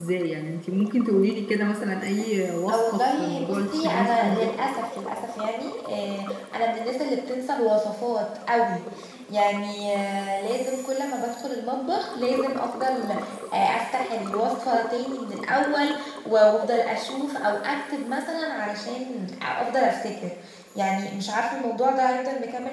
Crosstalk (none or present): present